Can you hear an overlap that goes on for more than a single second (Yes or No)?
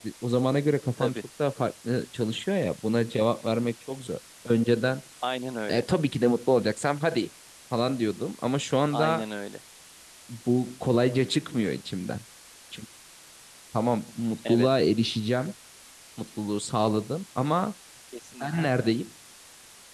No